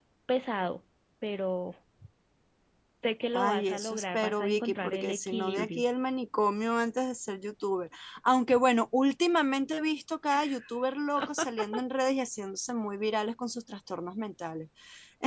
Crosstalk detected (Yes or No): Yes